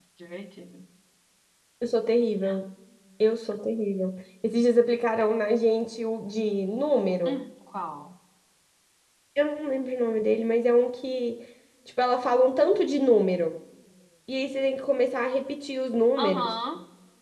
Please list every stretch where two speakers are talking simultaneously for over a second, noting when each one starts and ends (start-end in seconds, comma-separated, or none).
none